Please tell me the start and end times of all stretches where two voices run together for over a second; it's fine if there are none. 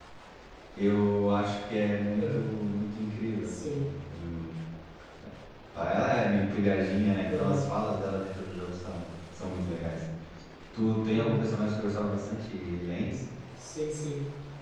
none

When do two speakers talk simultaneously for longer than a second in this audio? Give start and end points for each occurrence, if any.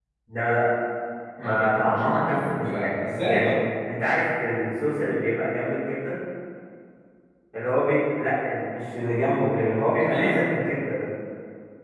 1.4-3.6

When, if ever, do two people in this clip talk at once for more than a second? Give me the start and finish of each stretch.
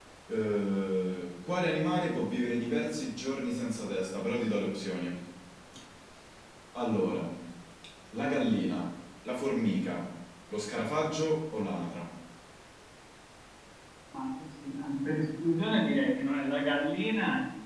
none

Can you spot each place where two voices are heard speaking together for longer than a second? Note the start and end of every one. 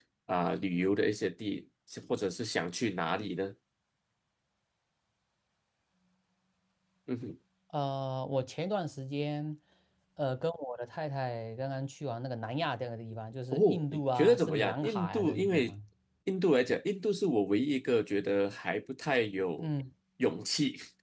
13.5-15.7

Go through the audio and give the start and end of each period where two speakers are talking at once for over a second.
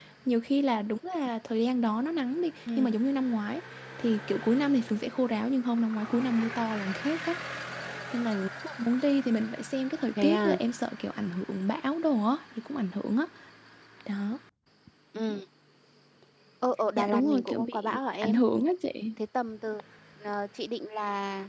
17.0-18.4

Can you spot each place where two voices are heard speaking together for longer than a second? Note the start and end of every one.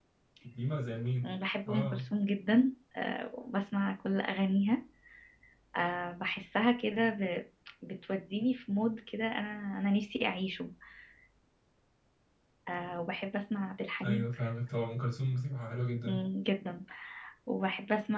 none

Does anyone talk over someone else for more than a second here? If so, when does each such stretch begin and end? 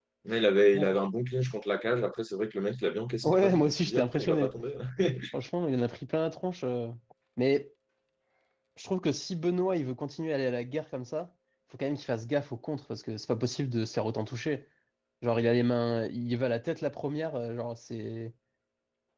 3.2-4.5

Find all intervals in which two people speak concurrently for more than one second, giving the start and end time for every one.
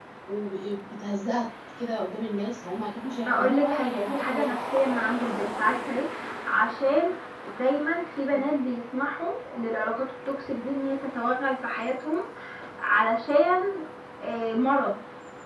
3.3-4.5

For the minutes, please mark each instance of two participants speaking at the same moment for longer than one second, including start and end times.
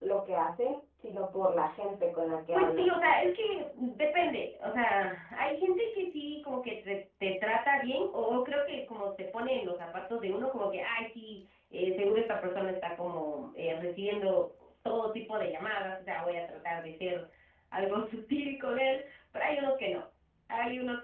none

